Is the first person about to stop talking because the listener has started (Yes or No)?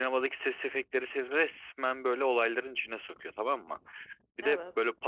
No